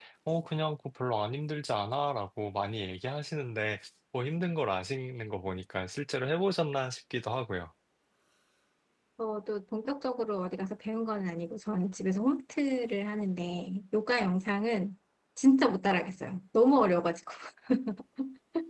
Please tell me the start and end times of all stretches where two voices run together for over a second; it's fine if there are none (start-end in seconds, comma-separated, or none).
none